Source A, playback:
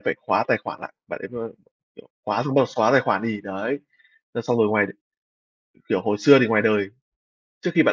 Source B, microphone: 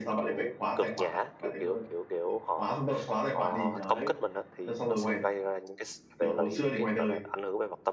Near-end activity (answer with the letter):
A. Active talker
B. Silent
A